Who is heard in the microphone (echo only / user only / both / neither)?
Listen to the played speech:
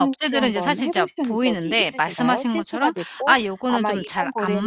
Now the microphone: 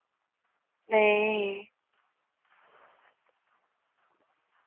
user only